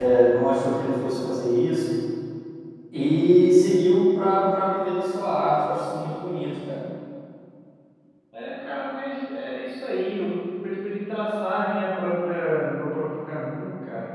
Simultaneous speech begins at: none

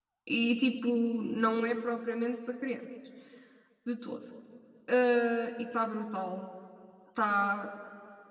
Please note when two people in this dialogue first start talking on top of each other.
none

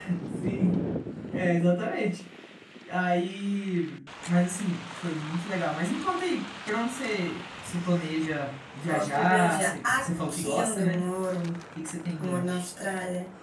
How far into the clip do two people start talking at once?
8.9 s

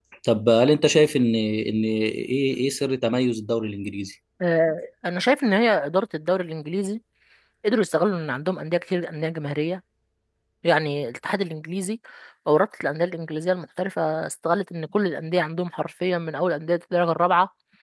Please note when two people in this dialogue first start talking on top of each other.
none

